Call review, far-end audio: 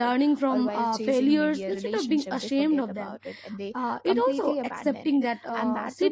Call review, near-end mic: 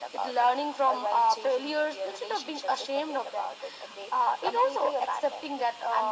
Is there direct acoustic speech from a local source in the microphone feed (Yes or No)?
No